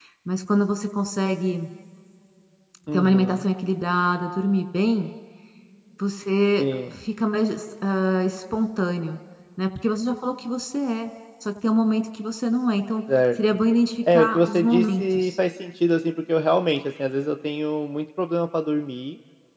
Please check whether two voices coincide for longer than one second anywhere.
Yes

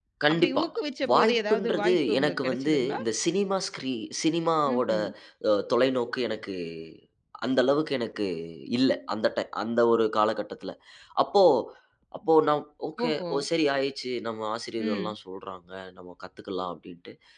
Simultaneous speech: Yes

